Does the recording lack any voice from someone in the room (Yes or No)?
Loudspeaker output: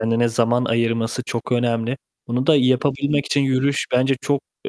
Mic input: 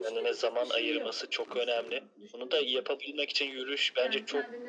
No